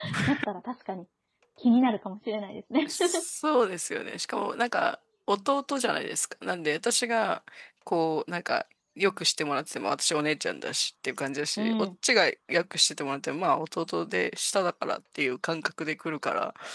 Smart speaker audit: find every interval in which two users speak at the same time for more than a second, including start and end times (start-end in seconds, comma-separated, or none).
none